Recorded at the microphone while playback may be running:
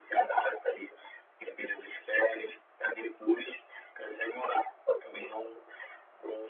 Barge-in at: none

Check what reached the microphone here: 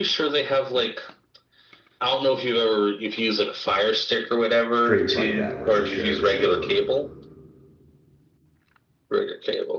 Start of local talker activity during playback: 4.7 s

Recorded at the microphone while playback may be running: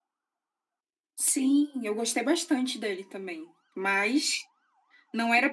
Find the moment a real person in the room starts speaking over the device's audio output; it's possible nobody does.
none

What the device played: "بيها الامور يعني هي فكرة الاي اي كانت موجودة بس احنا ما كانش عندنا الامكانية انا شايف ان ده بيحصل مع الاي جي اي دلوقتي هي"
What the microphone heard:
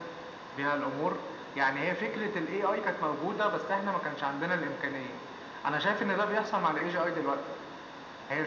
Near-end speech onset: none

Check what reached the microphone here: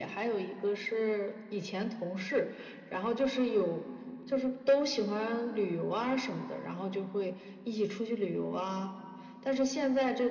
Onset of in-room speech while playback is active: none

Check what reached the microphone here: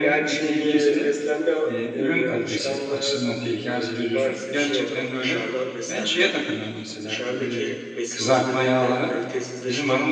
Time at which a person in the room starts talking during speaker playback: none

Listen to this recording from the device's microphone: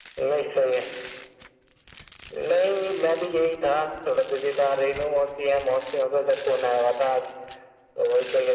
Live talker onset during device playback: none

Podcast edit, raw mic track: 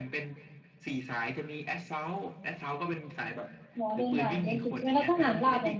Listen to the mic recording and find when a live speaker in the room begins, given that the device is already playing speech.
3.8 s

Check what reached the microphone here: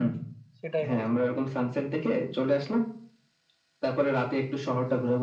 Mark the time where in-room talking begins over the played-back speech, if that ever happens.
0.6 s

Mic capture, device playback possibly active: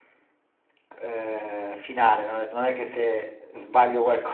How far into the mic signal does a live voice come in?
none

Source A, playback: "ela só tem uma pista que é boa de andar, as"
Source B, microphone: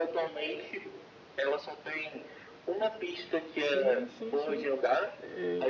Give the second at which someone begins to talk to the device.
3.6 s

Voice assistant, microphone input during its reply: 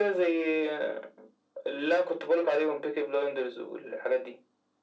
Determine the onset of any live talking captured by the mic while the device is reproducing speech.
none

